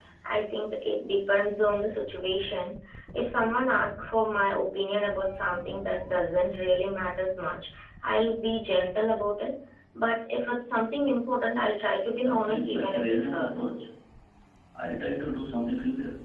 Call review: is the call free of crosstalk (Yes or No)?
No